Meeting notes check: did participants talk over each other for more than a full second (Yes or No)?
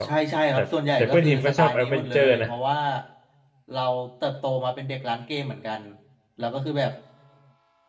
Yes